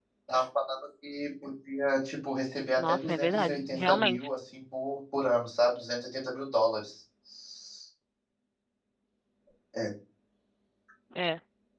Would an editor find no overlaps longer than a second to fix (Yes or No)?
No